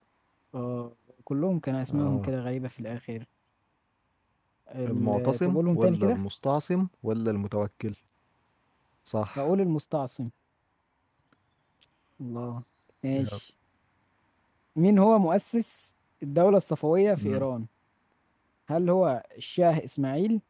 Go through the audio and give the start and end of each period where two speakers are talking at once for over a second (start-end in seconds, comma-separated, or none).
4.9-6.2